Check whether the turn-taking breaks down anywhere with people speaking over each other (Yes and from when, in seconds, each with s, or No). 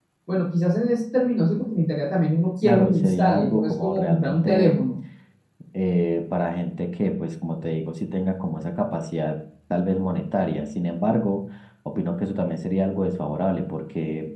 Yes, from 2.6 s